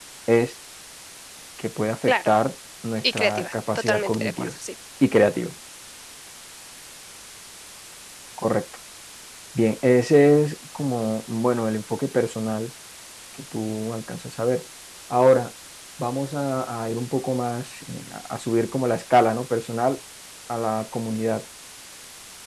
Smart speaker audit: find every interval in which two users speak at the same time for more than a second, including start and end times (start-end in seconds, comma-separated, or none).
3.1-4.5